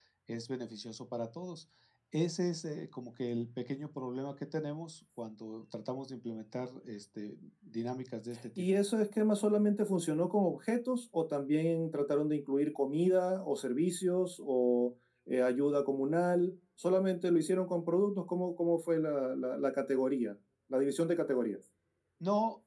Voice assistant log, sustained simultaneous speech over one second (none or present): none